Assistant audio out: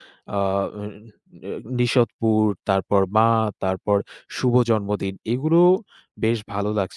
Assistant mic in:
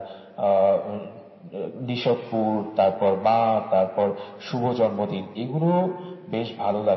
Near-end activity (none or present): none